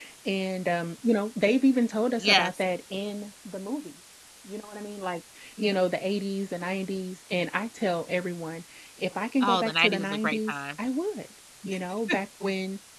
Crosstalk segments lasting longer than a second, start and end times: 9.4-10.6

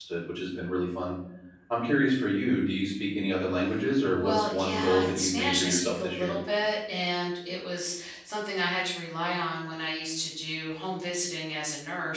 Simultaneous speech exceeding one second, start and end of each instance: 4.2-6.3

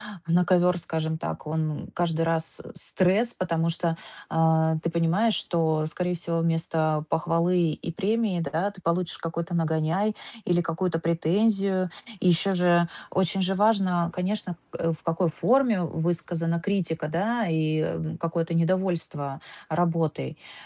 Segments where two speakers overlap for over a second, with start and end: none

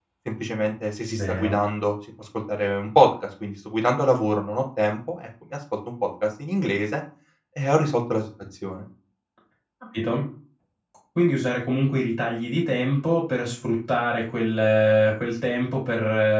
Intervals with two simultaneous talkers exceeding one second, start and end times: none

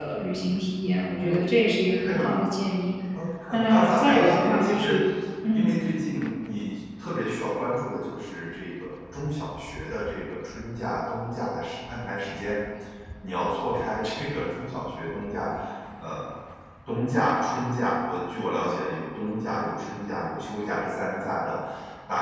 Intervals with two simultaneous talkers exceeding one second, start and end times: 3.7-4.9

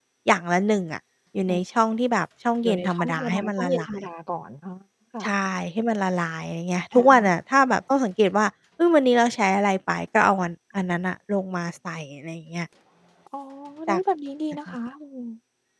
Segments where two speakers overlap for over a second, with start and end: 2.6-3.9

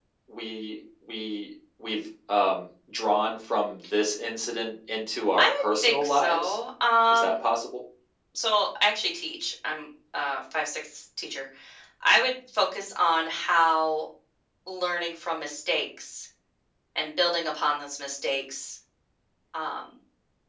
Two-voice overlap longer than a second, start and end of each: 5.4-6.6

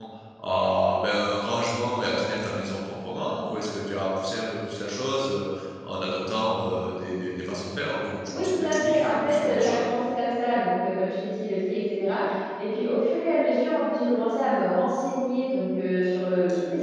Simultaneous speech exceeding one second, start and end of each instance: 8.3-9.8

